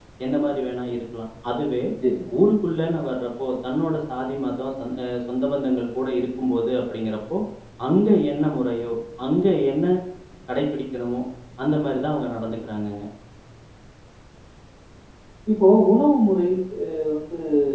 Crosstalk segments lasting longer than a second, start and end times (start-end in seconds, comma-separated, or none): none